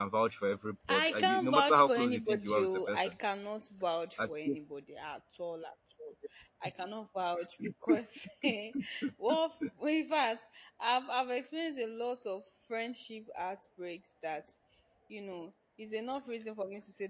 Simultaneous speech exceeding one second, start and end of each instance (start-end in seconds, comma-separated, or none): 0.9-3.1